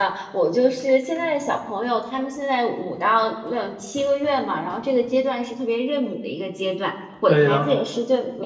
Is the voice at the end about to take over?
No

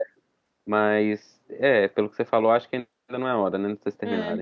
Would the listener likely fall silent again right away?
No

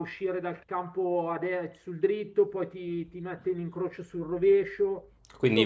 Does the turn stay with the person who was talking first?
No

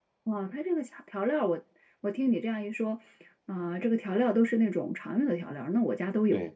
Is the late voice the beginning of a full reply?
Yes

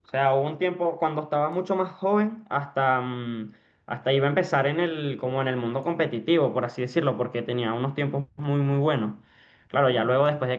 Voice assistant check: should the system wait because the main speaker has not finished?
Yes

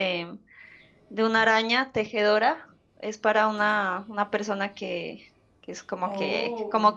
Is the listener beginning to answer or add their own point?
No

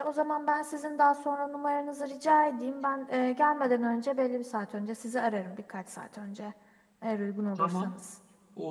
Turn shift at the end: Yes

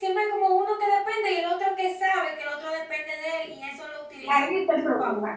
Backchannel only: No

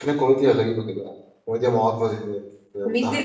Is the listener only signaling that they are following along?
No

